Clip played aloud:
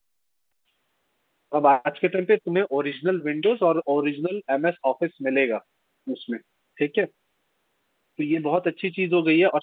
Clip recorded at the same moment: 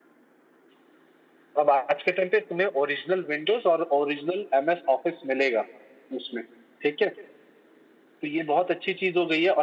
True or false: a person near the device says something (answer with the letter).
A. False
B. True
A